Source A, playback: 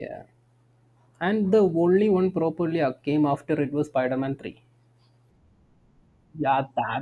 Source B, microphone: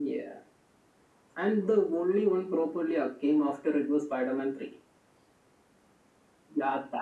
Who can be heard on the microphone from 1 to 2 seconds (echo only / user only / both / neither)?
echo only